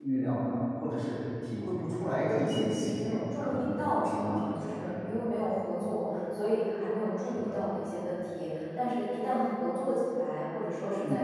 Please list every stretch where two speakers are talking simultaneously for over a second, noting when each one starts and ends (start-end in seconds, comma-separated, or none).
2.5-4.9